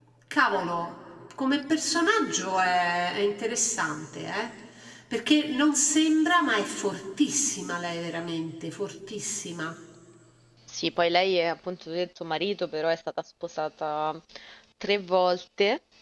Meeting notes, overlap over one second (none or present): none